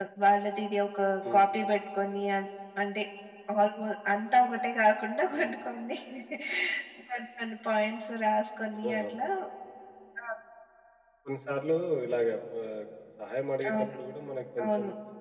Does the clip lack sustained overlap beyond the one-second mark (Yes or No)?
Yes